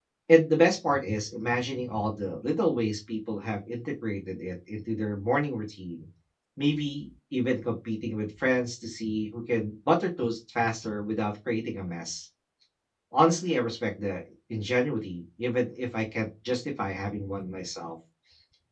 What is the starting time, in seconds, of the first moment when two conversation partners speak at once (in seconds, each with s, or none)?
none